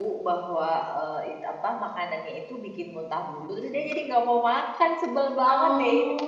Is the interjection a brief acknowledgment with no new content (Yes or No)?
No